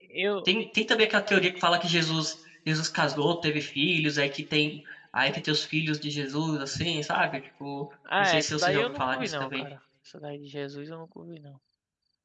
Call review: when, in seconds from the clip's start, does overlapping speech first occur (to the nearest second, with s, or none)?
8 s